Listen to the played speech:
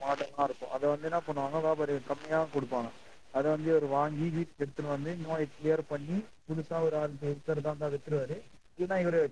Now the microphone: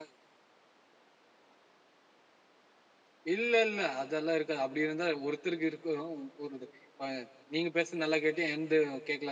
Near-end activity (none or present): present